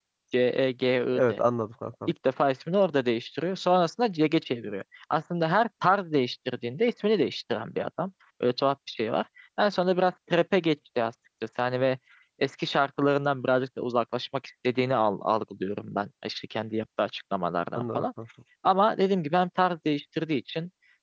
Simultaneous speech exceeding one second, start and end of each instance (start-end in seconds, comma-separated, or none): none